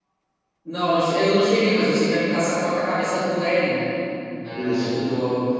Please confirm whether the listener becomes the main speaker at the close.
No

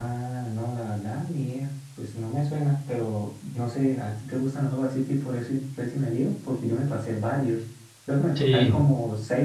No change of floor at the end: Yes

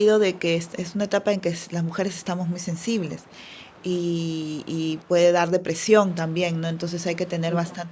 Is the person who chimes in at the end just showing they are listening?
Yes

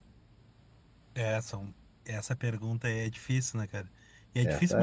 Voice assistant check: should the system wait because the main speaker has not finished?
Yes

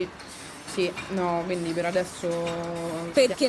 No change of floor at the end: No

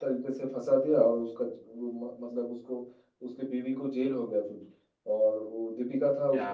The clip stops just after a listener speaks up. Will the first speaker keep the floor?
Yes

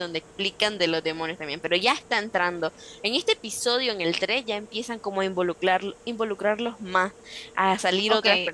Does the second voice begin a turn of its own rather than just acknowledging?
Yes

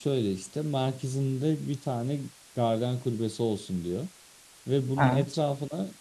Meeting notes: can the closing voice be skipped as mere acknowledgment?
Yes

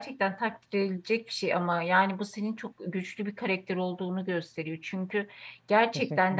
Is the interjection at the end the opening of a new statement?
No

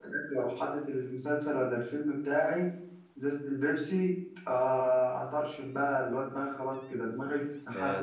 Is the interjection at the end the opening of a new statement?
Yes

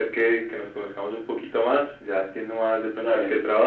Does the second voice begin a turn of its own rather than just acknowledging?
No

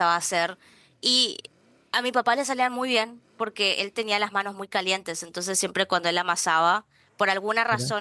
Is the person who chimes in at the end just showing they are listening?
Yes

